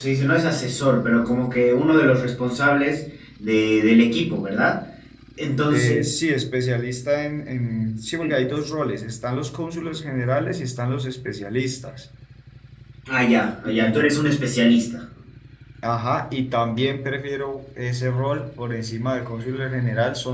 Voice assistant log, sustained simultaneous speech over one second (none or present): none